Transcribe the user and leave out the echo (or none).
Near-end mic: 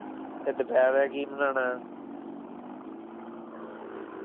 ਫ ਦੁਪਹਿਰ ਹੈ ਕਿ ਬਨਾਉਣਾ